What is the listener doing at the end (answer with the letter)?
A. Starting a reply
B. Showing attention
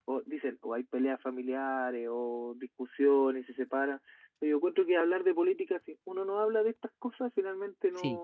B